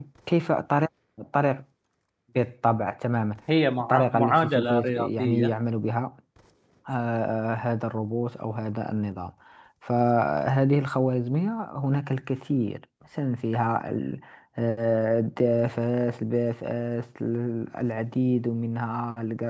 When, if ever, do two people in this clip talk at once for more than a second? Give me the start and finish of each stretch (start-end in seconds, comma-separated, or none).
3.9-5.5